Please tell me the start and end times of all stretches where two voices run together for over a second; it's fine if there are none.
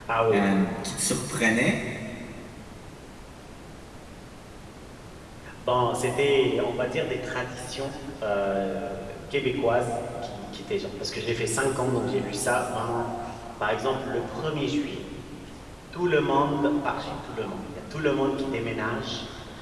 none

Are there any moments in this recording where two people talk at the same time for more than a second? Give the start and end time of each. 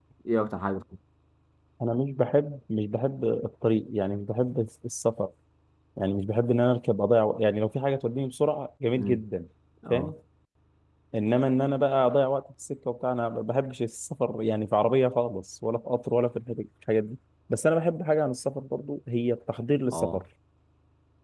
none

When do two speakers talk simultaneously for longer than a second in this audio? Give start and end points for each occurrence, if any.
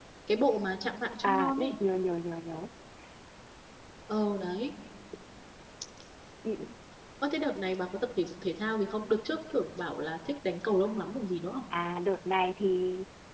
none

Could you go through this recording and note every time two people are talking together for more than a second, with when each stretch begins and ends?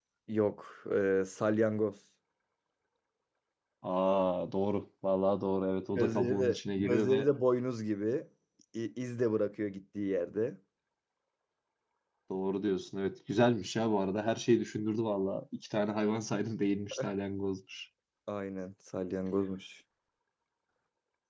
6.0-7.3

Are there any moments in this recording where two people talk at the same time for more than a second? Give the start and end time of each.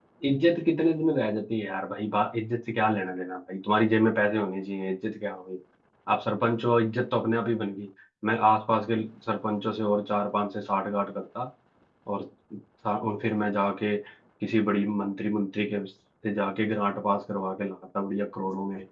none

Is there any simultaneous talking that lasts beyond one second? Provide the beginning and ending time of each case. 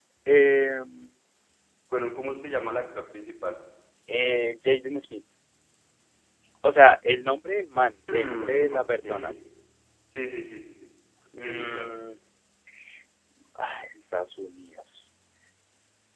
8.1-9.3

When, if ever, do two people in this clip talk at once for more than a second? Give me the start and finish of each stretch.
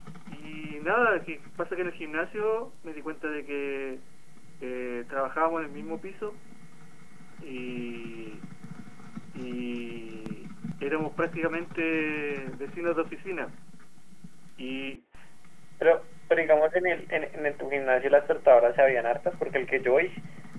none

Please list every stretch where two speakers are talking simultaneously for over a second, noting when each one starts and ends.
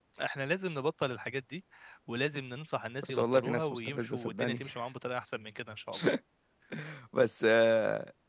3.0-4.6

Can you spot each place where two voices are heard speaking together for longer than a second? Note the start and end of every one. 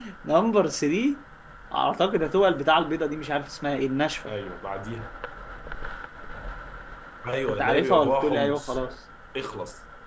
7.5-8.8

